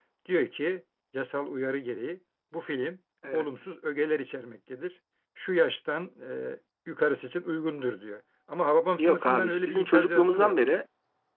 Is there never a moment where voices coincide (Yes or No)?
No